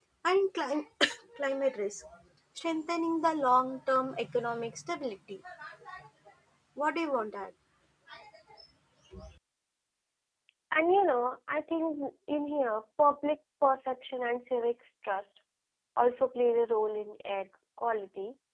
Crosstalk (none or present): none